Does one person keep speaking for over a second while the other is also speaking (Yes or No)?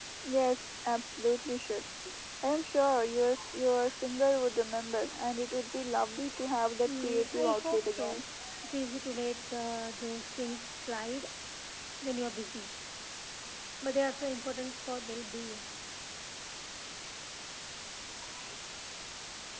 Yes